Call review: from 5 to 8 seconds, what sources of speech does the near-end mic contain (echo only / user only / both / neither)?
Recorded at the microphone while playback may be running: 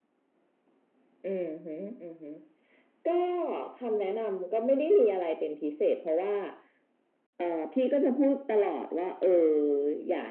echo only